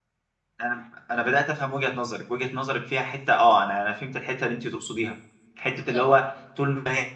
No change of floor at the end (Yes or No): Yes